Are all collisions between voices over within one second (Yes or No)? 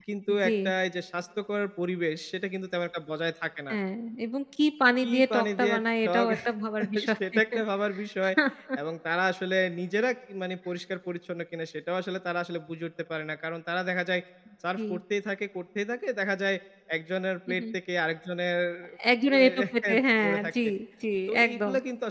No